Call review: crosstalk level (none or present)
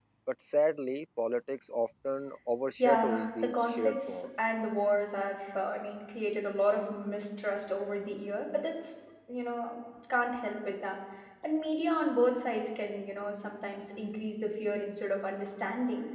present